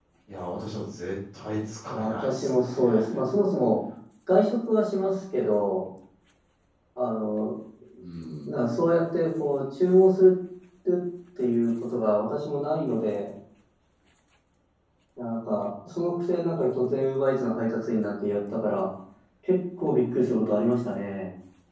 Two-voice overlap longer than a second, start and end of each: 1.9-3.2

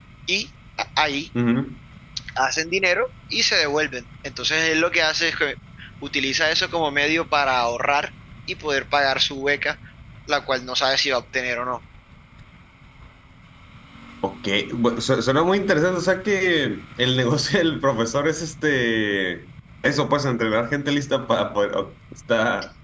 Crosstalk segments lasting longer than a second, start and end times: none

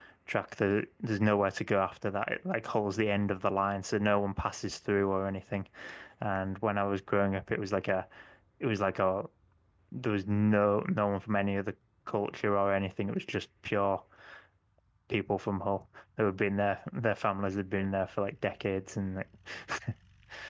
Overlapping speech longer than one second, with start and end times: none

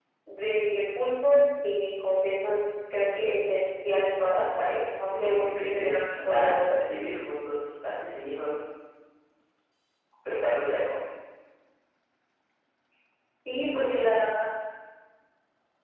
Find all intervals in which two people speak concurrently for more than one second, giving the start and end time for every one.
5.1-6.5

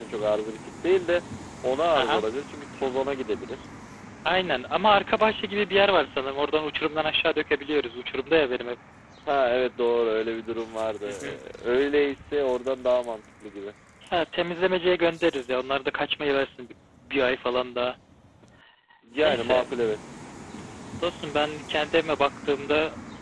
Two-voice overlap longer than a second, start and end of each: none

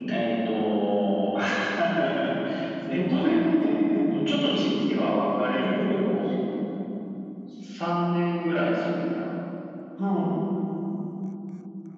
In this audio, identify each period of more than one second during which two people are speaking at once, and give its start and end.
2.9-4.6

